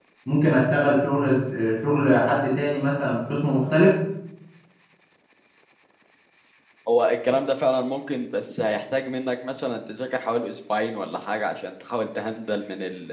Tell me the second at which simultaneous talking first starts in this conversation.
none

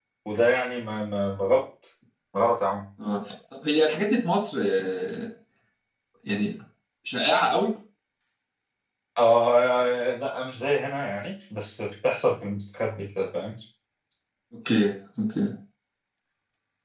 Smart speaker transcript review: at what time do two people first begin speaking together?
none

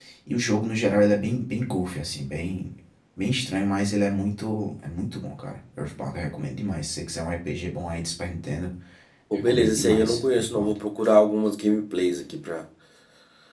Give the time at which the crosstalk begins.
9 s

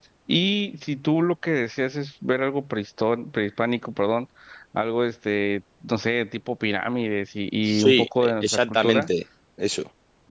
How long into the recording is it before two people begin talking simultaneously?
8 s

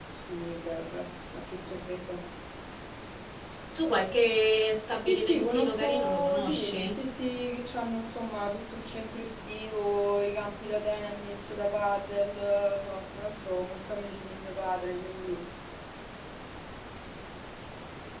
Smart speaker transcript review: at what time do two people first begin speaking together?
5 s

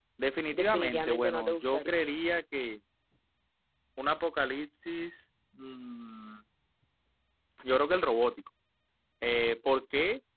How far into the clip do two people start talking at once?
1 s

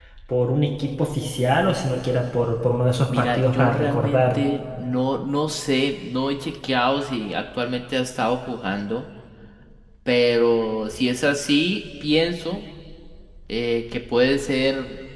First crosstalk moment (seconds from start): 3 s

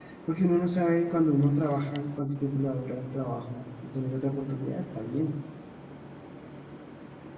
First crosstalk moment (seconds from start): none

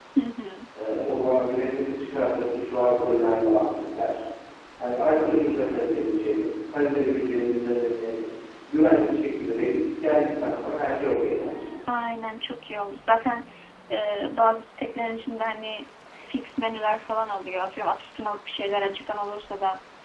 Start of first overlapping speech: none

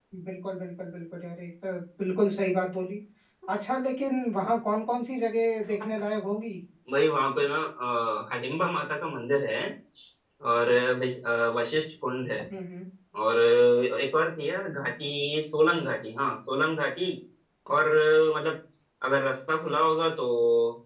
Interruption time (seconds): none

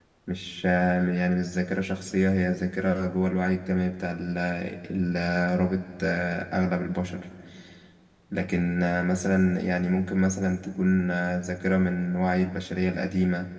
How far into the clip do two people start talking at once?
none

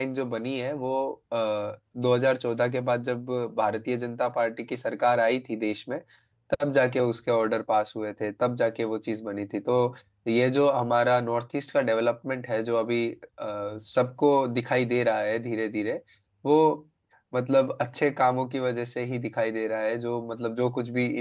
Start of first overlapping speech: none

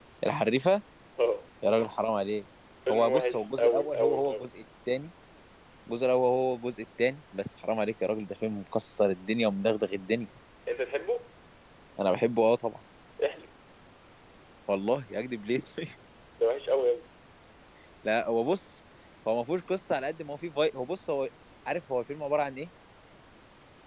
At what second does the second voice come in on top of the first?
3 s

